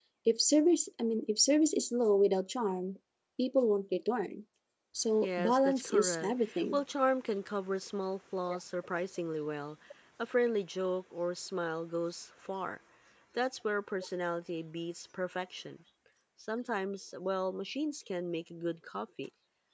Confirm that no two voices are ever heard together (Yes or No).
No